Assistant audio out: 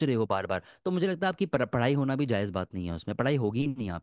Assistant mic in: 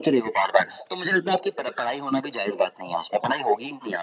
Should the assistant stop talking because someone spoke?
No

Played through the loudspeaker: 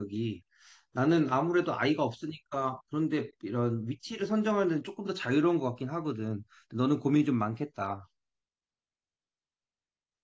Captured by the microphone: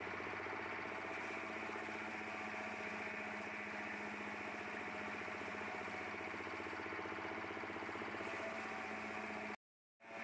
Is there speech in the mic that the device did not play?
No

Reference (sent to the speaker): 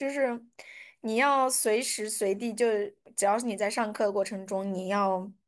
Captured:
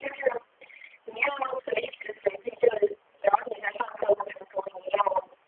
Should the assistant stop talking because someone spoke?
No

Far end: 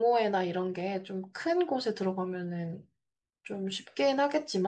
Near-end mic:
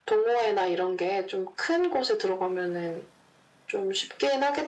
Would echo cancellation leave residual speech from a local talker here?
No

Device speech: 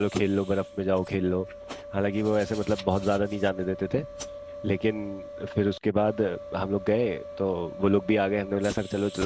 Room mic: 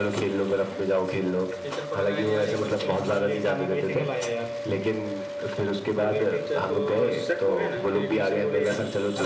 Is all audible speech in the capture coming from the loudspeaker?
No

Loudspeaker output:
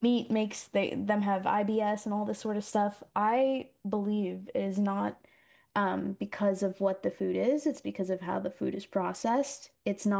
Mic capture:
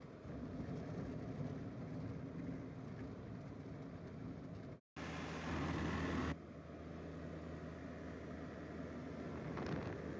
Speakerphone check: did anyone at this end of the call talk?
No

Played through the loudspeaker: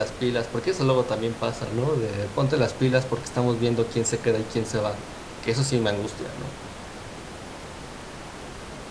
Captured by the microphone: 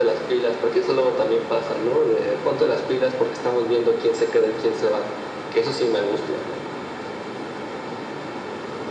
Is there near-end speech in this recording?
No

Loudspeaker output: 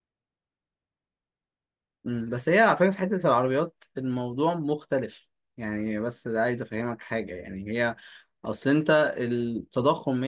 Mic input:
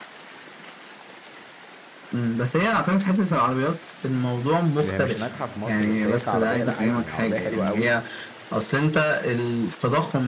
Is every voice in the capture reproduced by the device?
No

